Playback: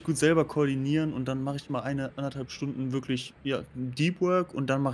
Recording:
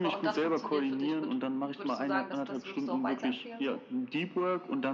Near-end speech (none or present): present